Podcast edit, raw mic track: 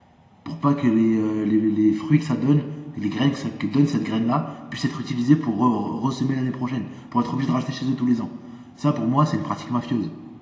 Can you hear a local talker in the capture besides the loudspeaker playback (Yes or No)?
Yes